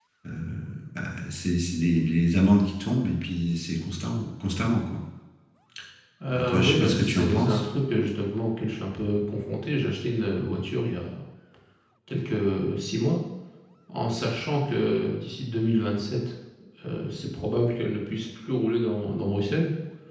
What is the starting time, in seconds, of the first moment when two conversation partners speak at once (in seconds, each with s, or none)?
6.3 s